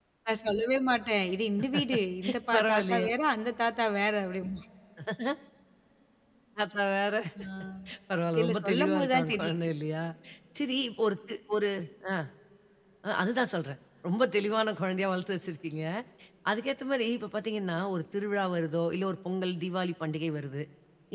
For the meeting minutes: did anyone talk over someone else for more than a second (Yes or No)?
Yes